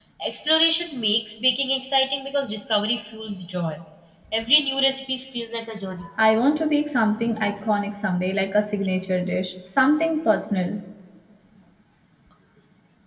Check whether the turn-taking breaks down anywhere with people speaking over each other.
No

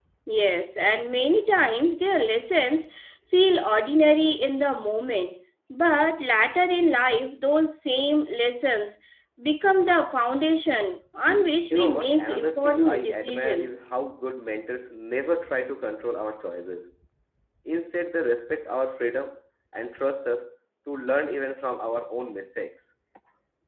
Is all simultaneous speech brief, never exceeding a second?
No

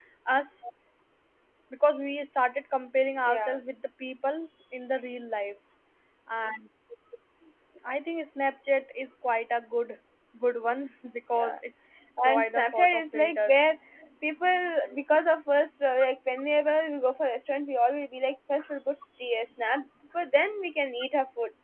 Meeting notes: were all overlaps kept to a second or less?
No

